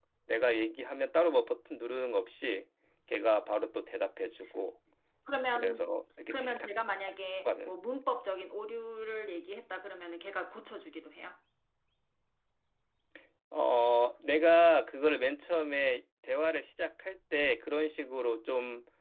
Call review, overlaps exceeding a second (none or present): none